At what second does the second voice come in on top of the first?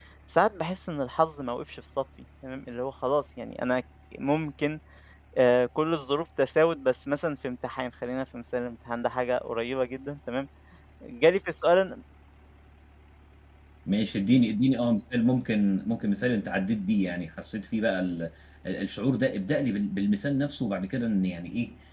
none

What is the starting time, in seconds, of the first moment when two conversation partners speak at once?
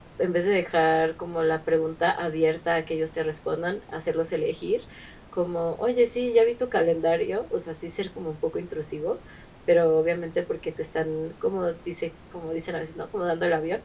none

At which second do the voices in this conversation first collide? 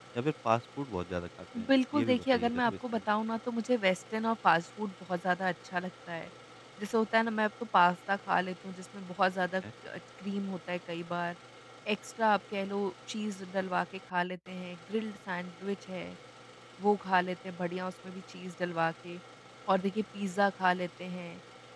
1.6 s

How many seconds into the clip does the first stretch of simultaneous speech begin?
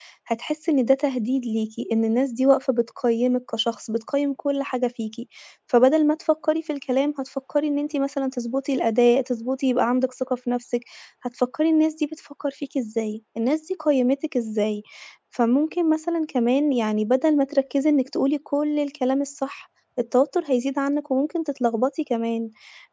none

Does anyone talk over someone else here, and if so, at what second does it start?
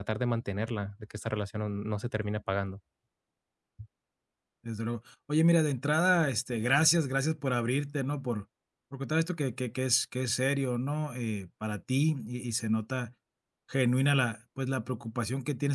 none

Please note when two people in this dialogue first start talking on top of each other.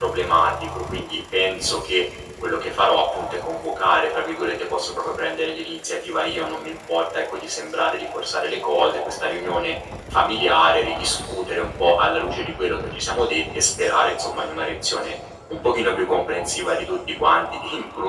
none

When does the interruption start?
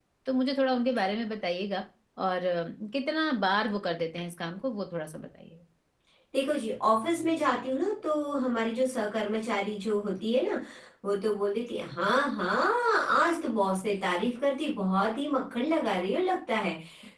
none

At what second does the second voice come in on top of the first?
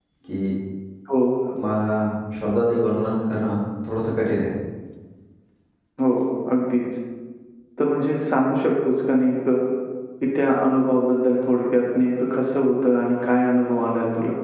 none

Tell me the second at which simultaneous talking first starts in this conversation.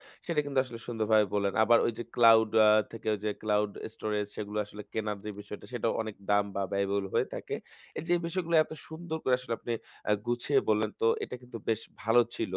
none

